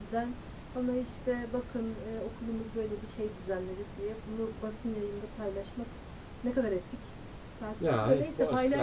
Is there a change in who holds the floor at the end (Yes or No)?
Yes